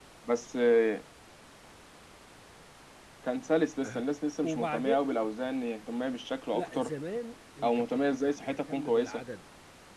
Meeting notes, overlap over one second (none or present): present